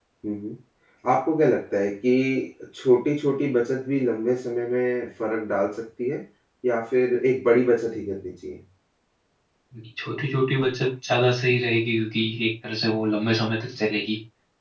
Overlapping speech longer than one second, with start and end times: none

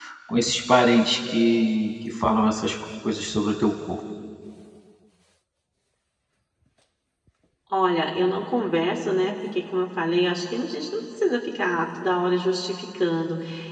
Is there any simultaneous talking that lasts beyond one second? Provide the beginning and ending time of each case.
none

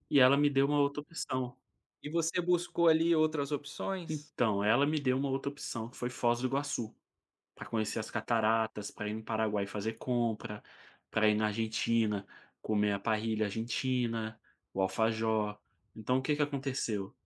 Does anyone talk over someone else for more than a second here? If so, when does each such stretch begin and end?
none

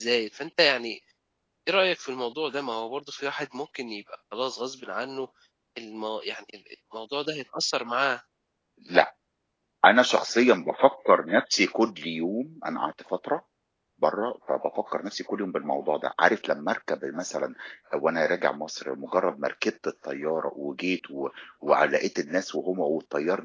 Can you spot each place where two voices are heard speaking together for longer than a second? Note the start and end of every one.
none

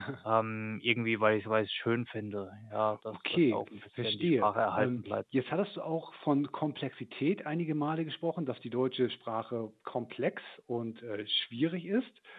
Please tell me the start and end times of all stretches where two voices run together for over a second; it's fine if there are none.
3.1-5.2

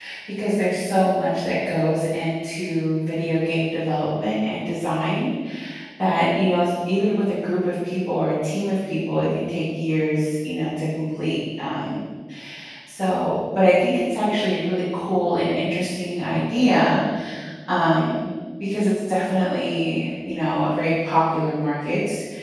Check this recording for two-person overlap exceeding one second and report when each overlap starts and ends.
none

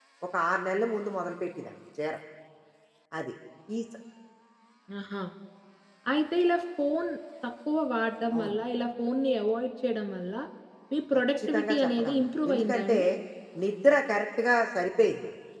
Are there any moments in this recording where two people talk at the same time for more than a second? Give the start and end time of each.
11.4-13.0

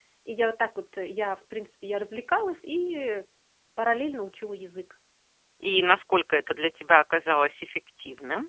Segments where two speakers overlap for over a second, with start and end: none

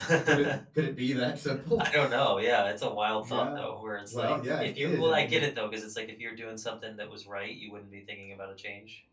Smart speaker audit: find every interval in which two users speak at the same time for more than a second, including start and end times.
4.1-5.4

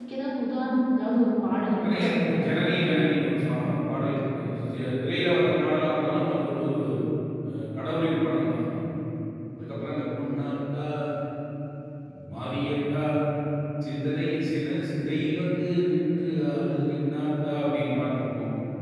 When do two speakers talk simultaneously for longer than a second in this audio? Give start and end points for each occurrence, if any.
1.8-3.1

